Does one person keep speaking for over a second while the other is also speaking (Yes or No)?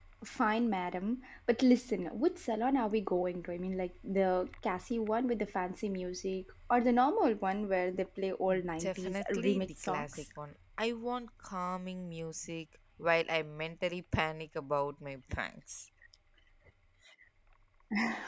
Yes